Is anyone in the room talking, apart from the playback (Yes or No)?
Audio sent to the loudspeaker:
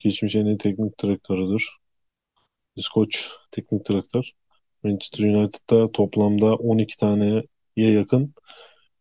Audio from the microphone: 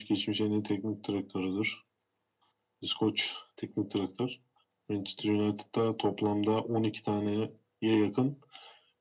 No